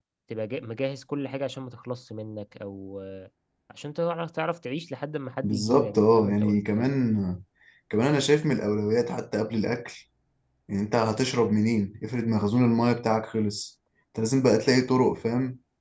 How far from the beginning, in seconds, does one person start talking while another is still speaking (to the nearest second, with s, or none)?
5 s